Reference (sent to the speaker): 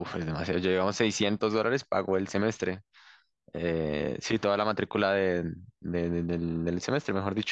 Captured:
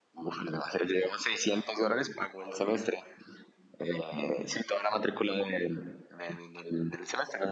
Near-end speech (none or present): none